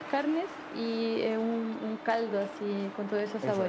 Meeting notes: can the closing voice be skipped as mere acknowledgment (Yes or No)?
No